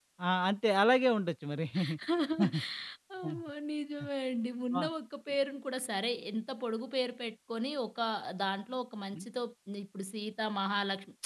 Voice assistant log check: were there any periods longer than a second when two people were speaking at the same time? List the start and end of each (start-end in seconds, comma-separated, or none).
none